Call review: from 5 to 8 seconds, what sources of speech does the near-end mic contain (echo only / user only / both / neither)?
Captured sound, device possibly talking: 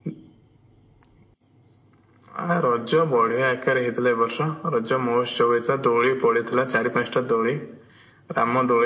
echo only